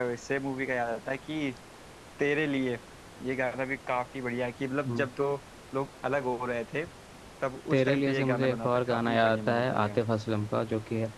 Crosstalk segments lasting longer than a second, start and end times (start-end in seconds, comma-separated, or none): 7.7-10.0